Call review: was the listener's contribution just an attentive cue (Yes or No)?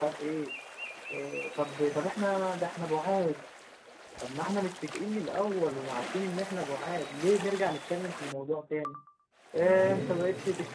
Yes